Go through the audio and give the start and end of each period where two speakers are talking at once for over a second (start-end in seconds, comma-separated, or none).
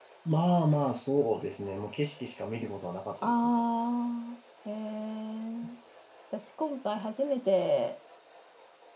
none